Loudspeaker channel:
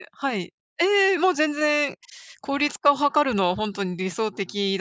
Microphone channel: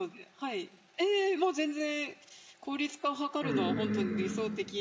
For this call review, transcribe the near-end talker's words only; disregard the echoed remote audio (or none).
うんうんうんうん。